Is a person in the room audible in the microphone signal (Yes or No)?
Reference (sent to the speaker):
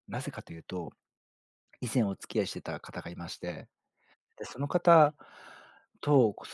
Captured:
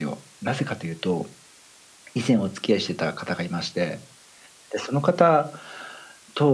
No